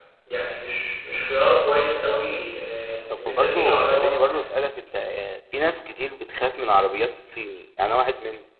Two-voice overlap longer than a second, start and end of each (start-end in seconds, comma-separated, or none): 3.1-4.4